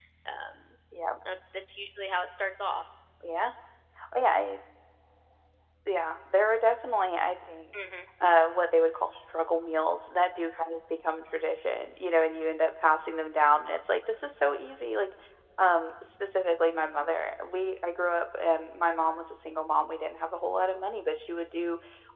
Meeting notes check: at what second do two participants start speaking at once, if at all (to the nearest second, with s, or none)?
none